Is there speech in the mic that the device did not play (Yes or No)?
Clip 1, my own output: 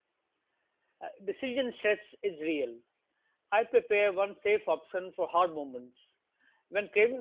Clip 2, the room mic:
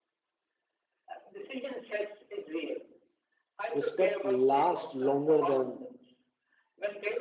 Yes